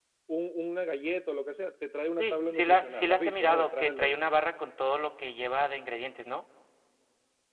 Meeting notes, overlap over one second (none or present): present